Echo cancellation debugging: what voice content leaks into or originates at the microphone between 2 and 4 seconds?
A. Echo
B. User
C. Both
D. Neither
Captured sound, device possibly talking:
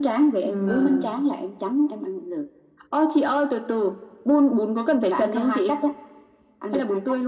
A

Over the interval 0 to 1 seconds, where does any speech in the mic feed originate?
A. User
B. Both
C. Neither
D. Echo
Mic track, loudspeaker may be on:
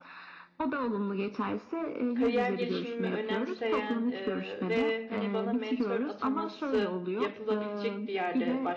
D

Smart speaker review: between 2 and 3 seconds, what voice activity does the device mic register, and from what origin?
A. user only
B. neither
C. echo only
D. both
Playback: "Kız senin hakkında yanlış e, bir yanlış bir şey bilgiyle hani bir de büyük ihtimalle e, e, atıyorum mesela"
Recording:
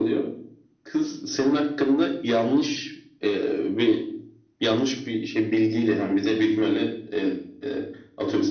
C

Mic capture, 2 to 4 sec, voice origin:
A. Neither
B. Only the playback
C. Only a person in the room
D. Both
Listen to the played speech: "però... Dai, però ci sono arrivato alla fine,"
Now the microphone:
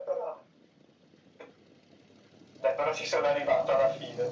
B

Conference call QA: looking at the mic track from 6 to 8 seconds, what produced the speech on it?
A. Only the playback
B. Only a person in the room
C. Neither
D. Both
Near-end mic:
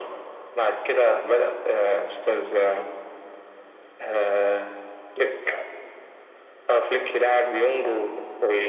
A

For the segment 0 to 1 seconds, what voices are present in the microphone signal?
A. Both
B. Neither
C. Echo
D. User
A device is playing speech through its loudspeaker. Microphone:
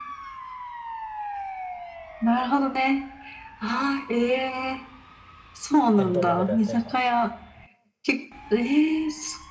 B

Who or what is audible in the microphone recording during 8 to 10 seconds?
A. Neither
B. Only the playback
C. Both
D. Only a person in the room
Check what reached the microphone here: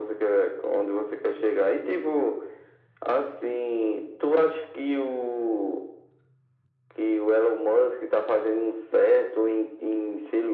B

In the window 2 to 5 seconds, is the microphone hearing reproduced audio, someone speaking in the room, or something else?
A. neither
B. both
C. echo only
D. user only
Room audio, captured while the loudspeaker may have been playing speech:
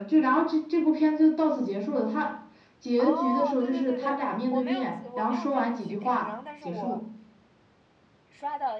B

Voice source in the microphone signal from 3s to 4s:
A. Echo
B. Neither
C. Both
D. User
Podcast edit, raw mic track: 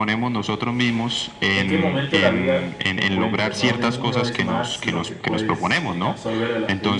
C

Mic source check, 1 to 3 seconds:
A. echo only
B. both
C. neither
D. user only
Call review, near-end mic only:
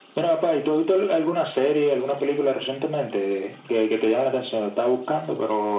A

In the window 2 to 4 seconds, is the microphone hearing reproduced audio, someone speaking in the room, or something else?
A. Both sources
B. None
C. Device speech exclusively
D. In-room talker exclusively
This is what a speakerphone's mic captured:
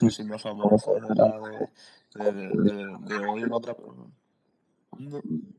C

